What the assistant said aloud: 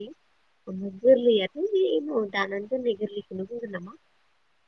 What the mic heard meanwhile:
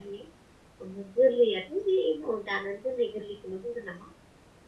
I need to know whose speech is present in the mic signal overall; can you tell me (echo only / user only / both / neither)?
echo only